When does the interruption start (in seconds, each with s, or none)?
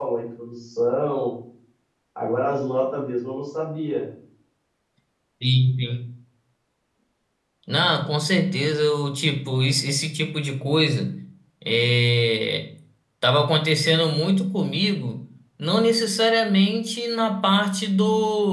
none